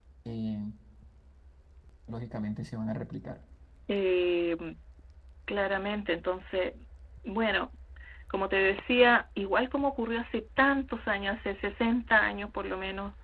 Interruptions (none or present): none